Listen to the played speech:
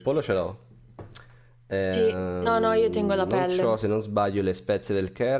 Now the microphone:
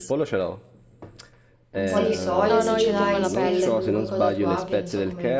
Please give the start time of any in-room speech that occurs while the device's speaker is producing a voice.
1.7 s

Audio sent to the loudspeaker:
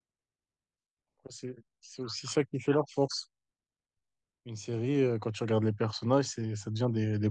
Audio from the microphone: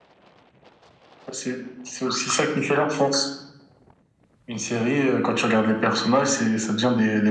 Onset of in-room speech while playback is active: none

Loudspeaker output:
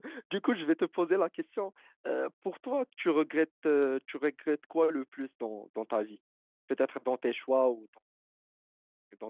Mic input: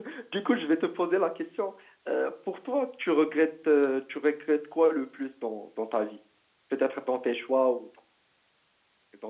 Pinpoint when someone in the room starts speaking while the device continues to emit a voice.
none

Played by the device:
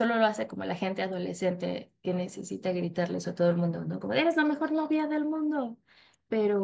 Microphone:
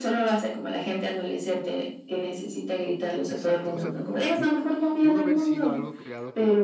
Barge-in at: 3.3 s

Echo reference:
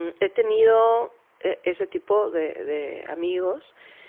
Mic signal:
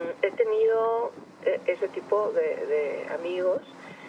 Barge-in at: none

